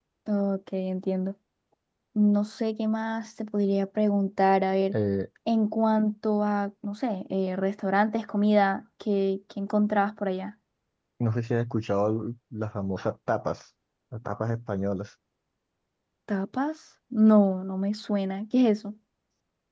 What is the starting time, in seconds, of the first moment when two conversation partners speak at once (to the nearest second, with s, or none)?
none